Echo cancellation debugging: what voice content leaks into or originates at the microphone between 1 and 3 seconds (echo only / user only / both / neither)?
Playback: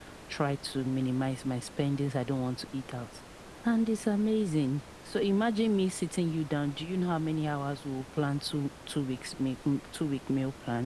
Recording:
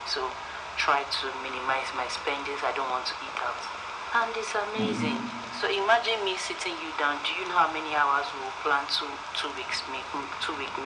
echo only